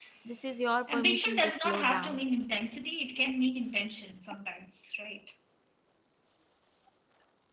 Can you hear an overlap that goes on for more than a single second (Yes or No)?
Yes